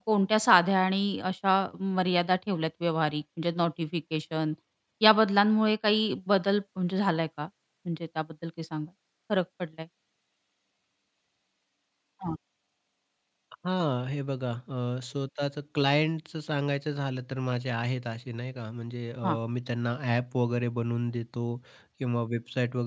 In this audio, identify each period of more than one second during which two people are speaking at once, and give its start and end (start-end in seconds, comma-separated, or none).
none